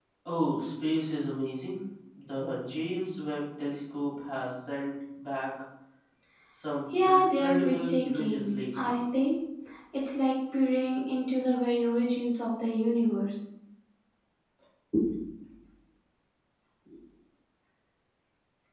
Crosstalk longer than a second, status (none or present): present